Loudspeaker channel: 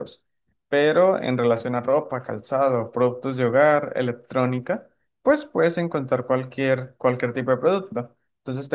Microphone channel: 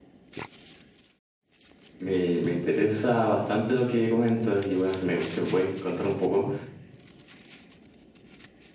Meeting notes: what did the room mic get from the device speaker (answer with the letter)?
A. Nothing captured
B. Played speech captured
A